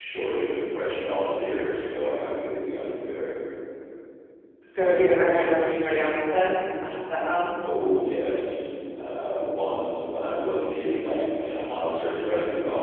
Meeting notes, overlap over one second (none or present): none